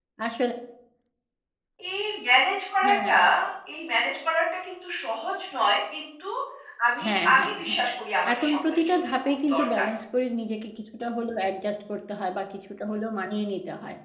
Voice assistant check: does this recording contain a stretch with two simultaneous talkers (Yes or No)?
Yes